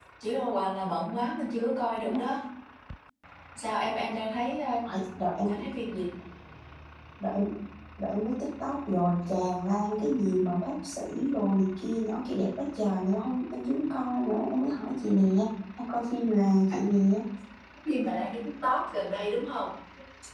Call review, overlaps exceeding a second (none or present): none